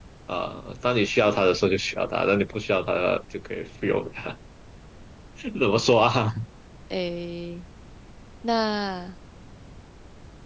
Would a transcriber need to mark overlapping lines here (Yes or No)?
No